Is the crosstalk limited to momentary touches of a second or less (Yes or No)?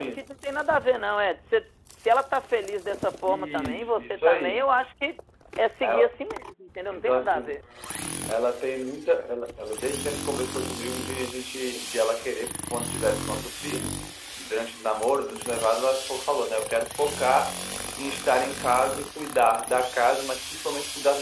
No